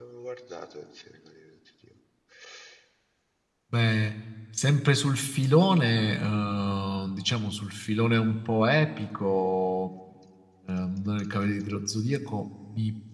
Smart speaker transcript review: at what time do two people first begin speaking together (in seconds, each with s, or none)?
none